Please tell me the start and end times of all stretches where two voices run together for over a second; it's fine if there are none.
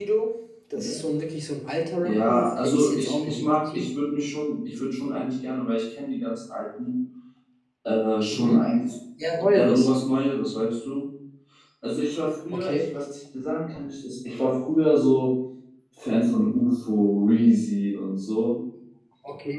2.0-3.9

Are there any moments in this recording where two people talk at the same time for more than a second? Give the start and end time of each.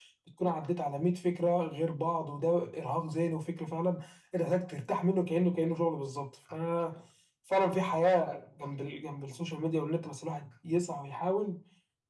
none

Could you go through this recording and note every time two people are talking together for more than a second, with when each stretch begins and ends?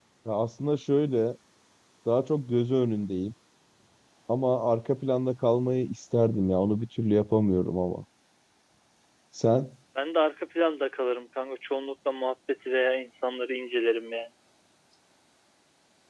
none

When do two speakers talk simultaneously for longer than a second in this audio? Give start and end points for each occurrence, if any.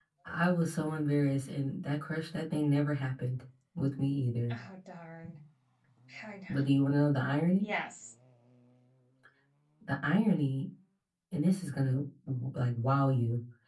none

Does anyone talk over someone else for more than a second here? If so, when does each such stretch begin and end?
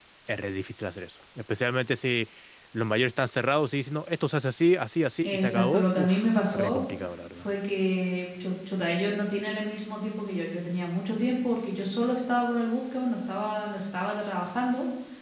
5.2-6.9

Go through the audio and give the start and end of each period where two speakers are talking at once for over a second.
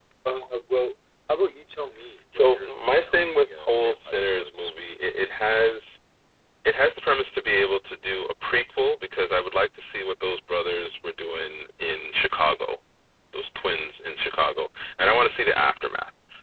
2.4-4.7

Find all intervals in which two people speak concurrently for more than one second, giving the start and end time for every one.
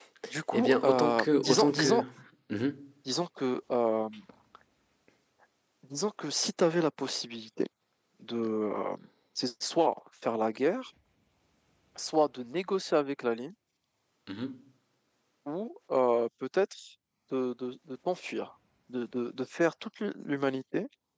0.5-2.0

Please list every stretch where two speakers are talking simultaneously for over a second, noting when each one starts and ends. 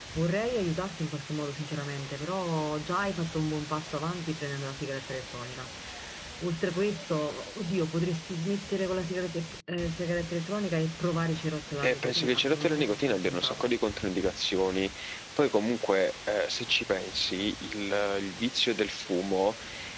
11.8-13.7

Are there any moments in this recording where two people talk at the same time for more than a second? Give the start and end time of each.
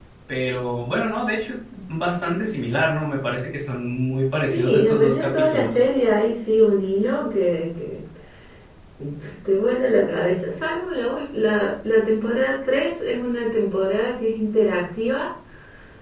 4.5-5.8

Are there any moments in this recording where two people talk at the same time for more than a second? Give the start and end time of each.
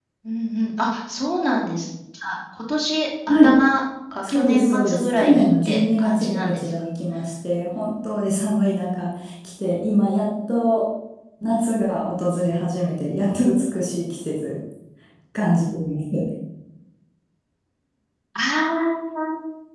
4.3-6.7

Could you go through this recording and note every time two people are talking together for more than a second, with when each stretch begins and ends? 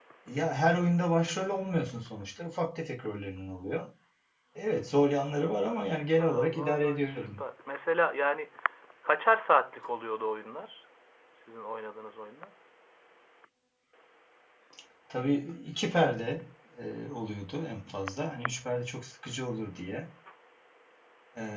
5.6-7.4

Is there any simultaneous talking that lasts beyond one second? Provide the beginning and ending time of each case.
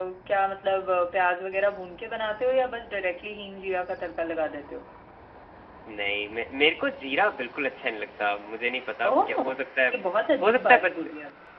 none

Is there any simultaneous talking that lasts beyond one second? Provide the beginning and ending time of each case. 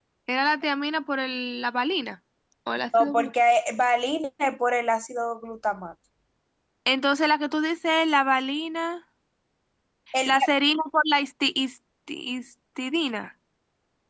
none

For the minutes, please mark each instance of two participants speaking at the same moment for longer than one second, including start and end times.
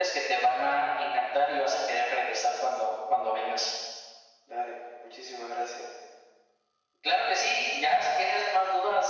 none

